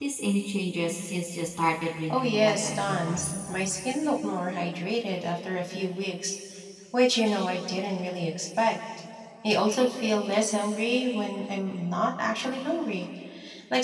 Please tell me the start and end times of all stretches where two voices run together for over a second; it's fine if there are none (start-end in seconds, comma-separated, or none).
2.1-3.4